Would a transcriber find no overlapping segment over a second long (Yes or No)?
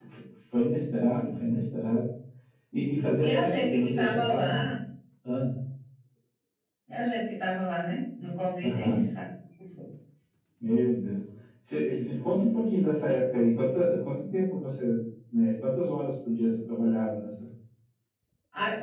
No